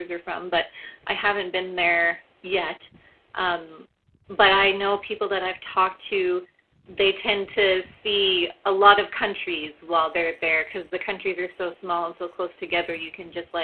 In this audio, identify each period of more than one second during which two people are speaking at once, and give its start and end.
none

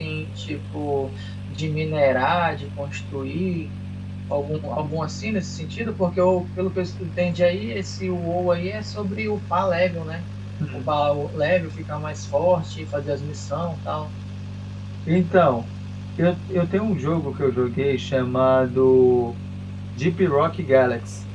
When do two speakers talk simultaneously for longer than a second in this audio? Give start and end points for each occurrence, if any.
none

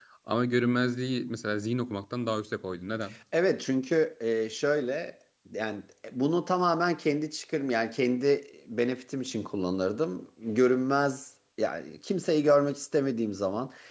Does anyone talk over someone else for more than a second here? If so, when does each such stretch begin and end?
none

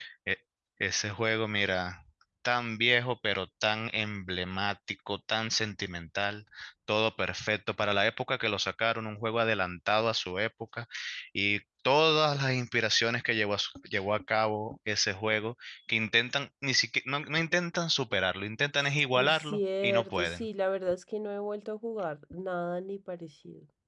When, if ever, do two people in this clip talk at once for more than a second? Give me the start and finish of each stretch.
19.1-20.5

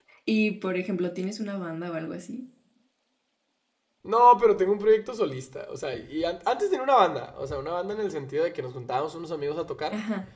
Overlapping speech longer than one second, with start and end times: none

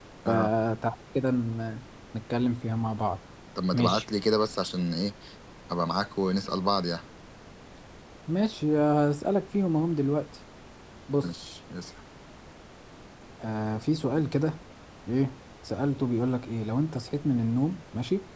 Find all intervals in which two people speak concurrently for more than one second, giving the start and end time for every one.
none

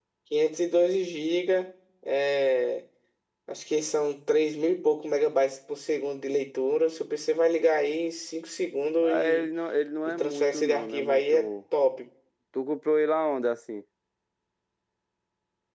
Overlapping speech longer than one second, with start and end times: 10.1-11.5

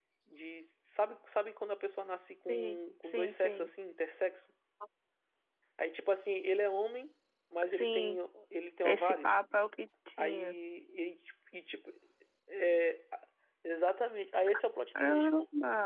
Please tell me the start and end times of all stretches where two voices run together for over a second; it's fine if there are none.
2.5-3.7

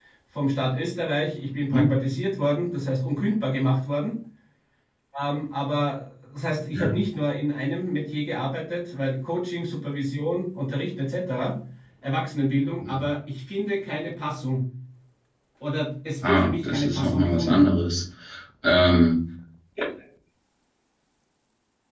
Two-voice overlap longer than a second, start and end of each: 16.2-17.6

